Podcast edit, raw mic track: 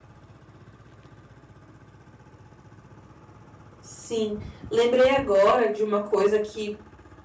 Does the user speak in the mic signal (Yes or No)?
Yes